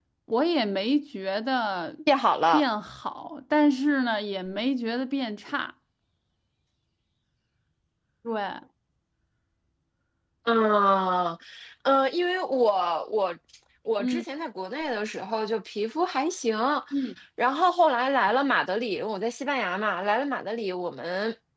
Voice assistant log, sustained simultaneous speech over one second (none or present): none